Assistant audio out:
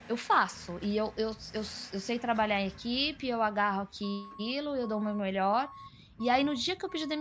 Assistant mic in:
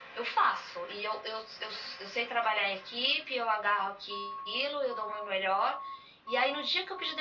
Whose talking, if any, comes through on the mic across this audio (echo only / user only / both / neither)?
echo only